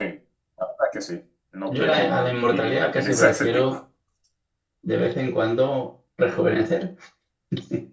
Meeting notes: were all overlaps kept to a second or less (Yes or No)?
No